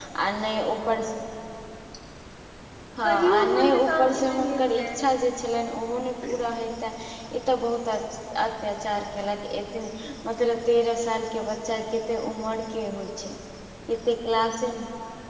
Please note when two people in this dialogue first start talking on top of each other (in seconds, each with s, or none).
3.0 s